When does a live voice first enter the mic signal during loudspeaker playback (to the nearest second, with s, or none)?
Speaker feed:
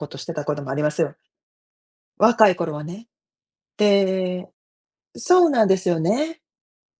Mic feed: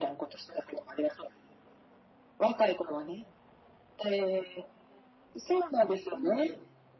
6 s